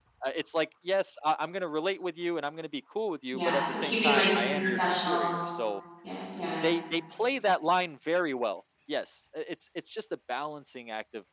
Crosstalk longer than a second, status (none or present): present